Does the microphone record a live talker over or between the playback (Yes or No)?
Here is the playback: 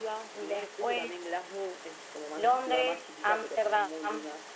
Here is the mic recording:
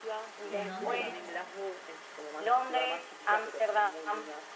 Yes